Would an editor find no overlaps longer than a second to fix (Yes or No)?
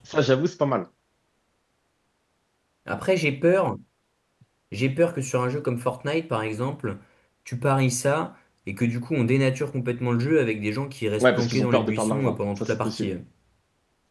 No